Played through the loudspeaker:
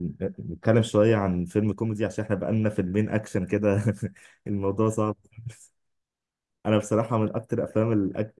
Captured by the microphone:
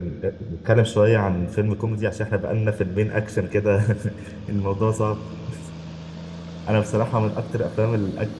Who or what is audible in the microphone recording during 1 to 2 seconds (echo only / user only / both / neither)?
echo only